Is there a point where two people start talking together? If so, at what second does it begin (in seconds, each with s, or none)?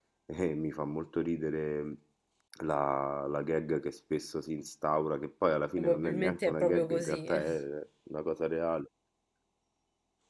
5.8 s